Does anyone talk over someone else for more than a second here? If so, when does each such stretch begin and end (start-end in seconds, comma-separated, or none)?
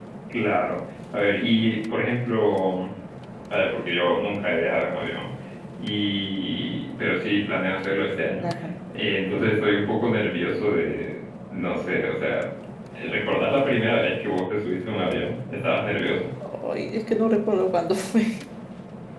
none